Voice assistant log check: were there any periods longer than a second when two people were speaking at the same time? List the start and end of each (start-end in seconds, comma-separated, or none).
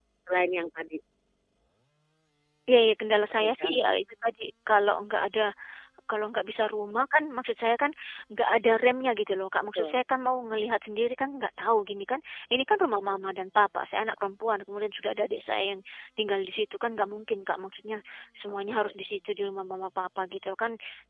none